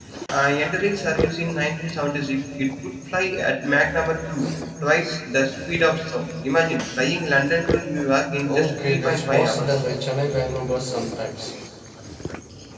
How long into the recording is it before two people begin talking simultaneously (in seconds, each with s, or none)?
8.4 s